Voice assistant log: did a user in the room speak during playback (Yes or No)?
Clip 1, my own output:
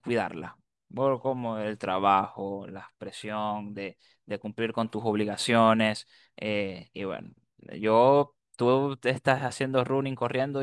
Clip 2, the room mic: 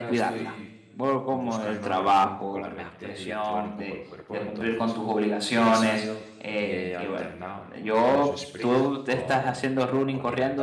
Yes